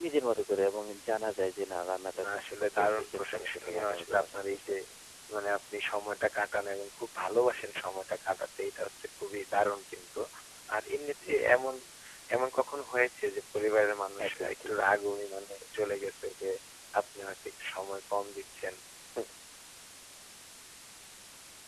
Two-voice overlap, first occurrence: 2 s

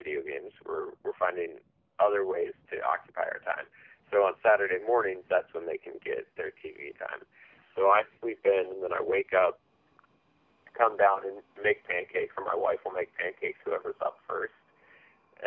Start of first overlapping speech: none

